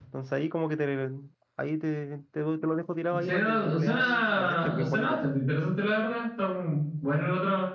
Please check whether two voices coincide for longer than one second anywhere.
Yes, from 3.1 s

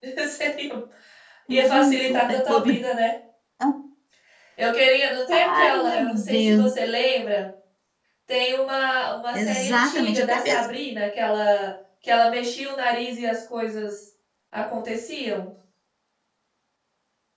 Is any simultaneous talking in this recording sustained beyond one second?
Yes, from 1.5 s

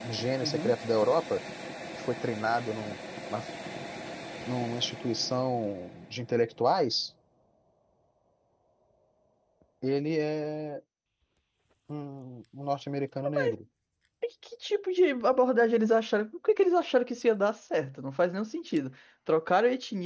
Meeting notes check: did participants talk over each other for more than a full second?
No

